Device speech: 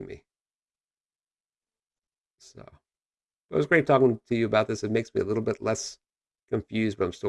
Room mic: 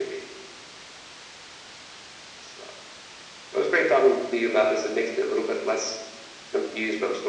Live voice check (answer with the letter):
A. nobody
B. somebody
A